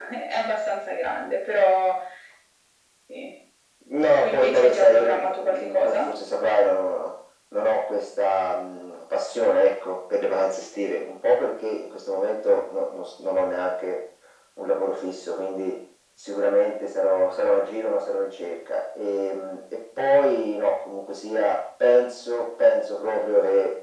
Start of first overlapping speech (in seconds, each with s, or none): 4.1 s